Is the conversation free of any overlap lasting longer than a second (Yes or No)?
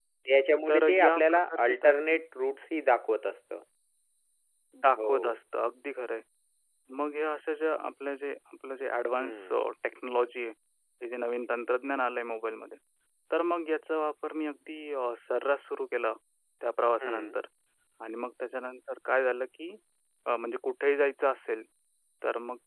No